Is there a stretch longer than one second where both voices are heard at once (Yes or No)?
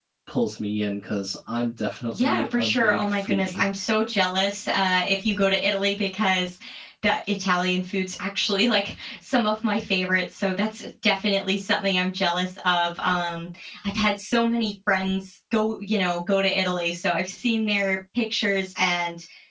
Yes